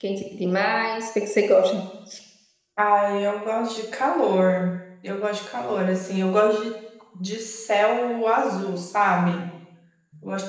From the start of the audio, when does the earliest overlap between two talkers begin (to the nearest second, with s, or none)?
none